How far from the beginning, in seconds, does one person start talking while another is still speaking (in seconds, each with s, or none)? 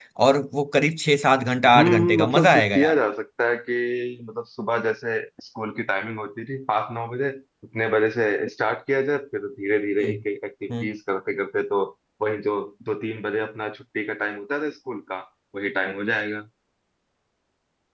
1.6 s